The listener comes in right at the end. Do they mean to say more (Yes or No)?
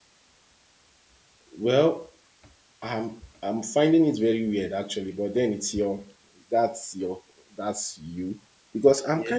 No